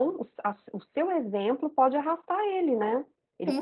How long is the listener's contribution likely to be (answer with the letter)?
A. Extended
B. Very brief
A